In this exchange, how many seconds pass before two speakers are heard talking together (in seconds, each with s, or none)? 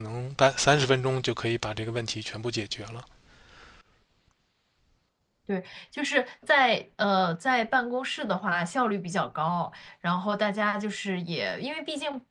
none